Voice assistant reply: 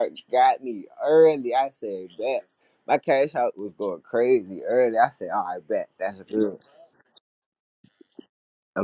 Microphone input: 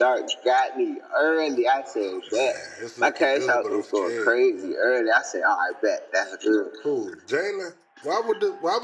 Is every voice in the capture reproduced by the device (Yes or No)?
No